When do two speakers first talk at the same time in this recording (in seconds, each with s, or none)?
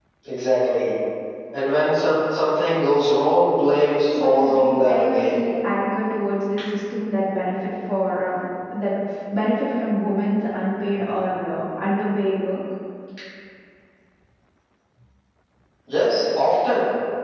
4.2 s